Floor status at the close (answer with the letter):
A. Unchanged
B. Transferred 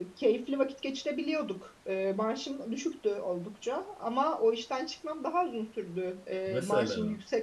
A